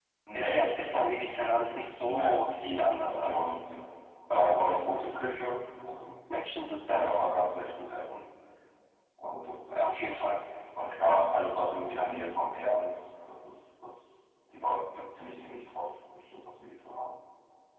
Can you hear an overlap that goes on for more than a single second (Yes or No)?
Yes